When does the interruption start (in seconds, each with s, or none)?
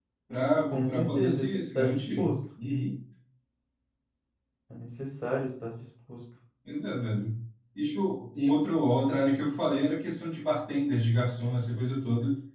0.7 s